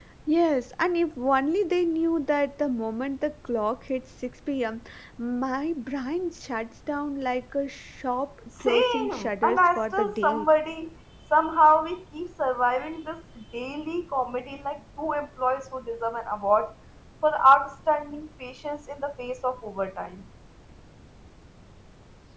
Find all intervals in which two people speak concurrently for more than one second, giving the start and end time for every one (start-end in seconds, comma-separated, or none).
8.7-10.5